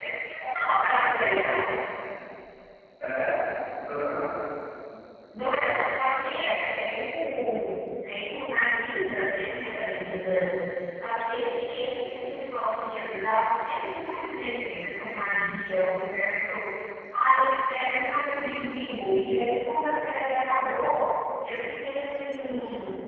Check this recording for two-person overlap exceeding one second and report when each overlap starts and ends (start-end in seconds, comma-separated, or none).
none